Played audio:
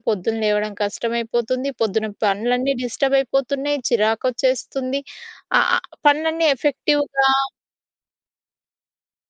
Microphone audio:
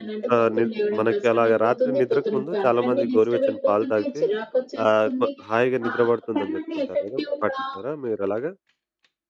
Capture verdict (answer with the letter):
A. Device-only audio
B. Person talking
B